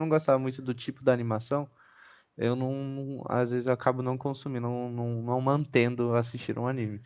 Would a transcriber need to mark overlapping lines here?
No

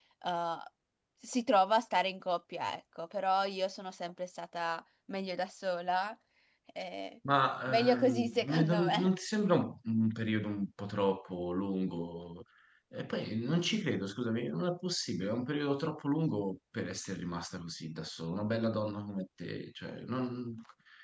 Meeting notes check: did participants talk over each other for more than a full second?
Yes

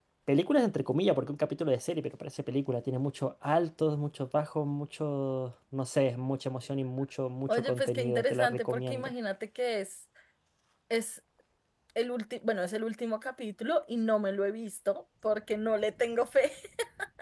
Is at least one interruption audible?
Yes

